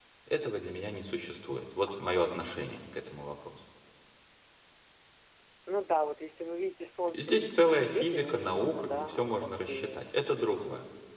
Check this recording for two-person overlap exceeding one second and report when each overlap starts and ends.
7.1-10.0

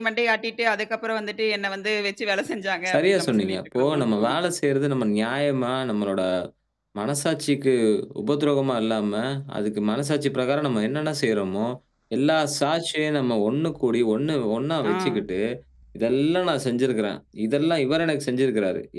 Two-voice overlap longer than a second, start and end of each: 2.9-4.4

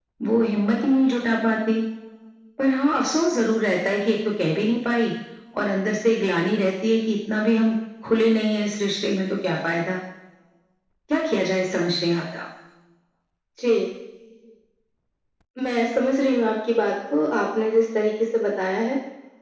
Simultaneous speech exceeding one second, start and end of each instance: none

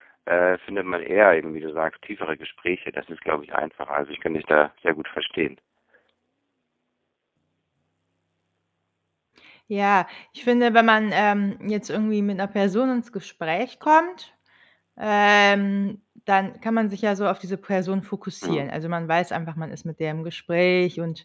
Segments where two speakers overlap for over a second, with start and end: none

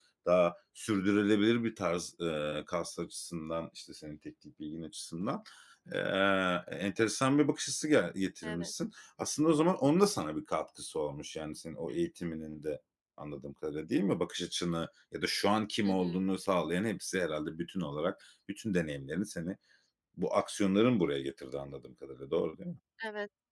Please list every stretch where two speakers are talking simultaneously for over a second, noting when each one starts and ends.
none

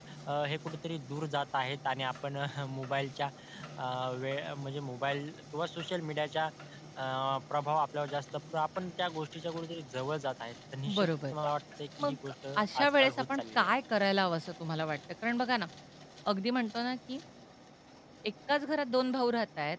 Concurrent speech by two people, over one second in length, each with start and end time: 12.0-13.7

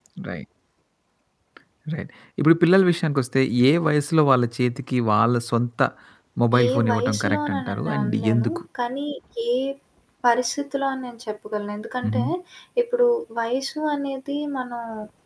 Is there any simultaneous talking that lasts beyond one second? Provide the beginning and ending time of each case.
6.6-8.6

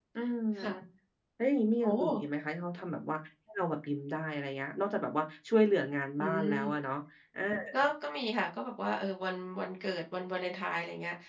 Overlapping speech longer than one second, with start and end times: none

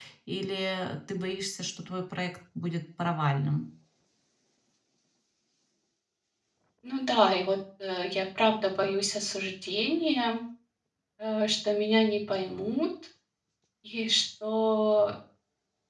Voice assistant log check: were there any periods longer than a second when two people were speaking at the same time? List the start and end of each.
none

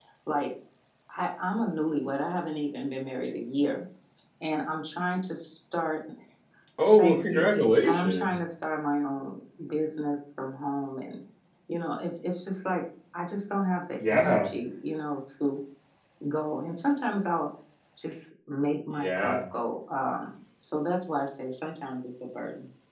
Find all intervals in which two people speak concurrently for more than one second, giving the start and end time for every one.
none

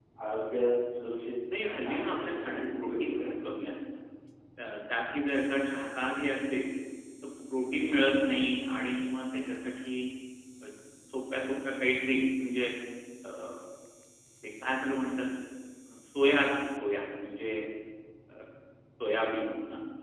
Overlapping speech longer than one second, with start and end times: 1.6-3.5

